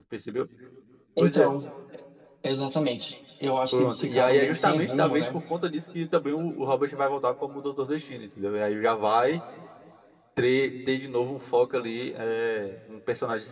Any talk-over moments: Yes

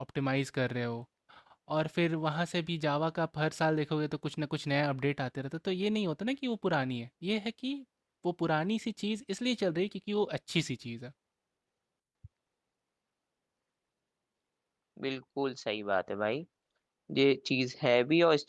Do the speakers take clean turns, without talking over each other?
Yes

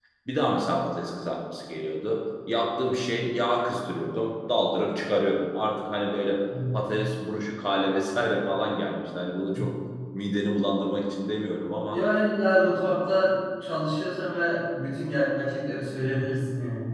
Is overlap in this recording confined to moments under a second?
Yes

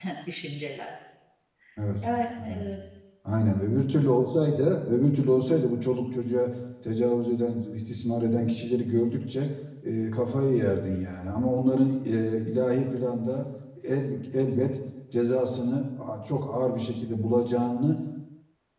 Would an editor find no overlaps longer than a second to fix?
Yes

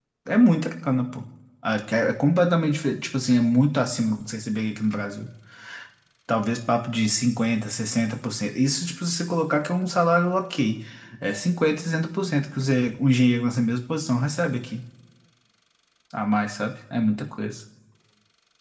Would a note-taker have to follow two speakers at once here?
No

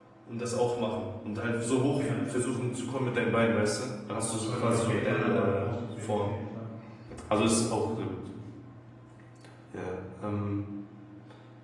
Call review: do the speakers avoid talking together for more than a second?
No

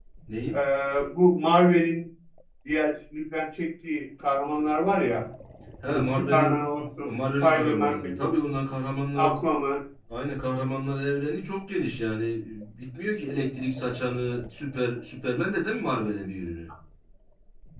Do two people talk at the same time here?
Yes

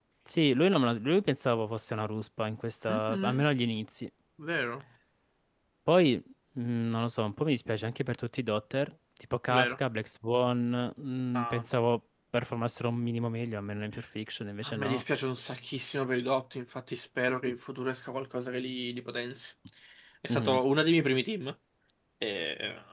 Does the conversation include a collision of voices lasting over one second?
No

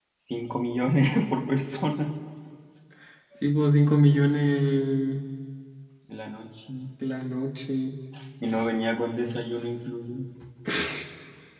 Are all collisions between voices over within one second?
Yes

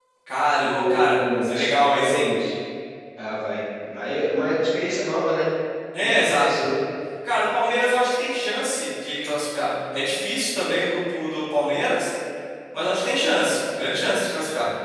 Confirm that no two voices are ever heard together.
No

